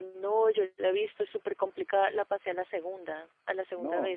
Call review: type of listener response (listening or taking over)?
taking over